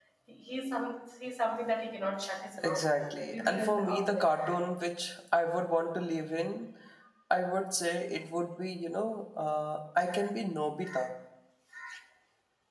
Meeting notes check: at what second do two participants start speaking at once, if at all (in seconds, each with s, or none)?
2.6 s